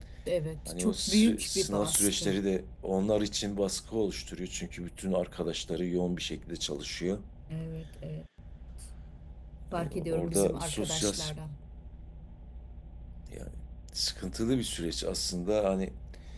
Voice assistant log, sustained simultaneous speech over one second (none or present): present